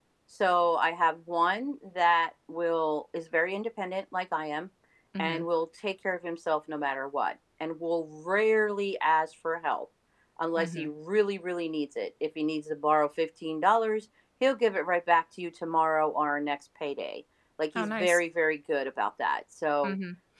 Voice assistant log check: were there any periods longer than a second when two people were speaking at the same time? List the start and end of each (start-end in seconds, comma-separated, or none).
none